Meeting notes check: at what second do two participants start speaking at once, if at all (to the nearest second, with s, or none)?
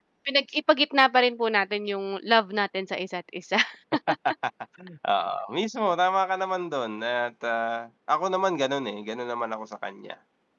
none